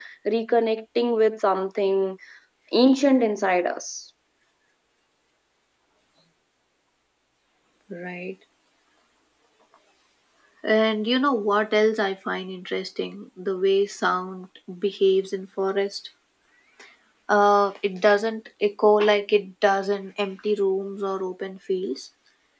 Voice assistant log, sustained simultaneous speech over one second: none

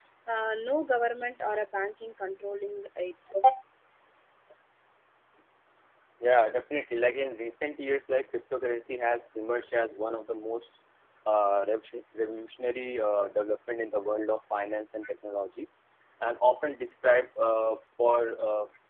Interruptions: none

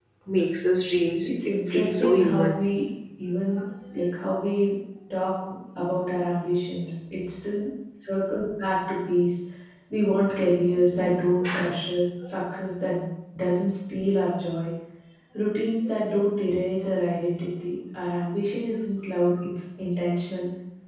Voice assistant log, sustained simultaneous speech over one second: present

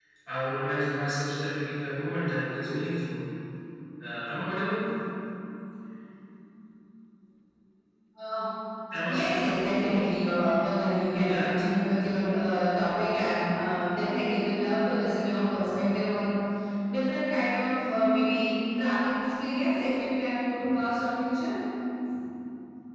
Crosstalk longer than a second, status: none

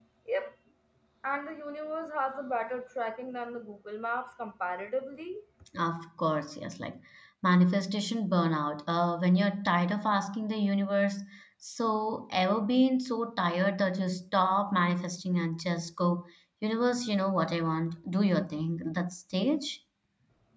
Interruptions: none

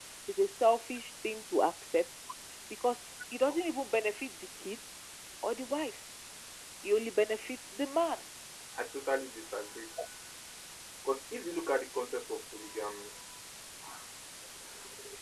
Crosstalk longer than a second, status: none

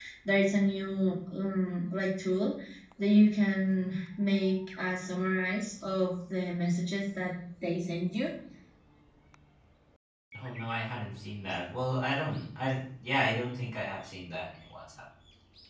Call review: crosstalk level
none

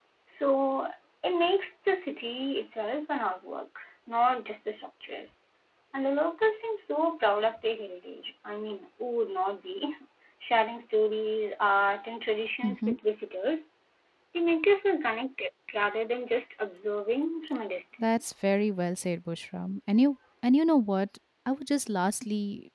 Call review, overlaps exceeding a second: none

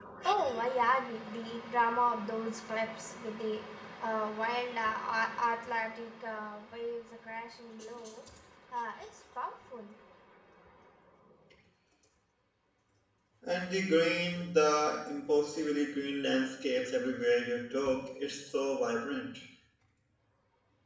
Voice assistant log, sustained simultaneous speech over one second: none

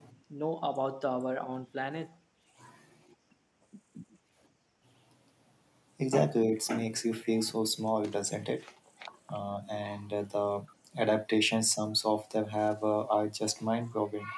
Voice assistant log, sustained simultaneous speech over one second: none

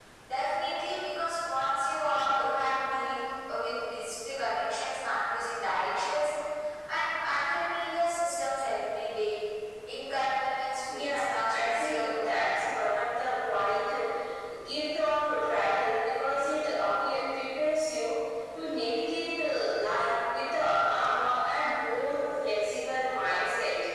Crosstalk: present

